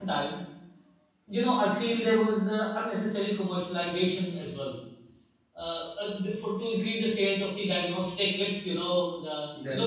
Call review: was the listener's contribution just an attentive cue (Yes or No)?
Yes